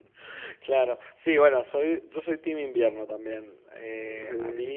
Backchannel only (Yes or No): Yes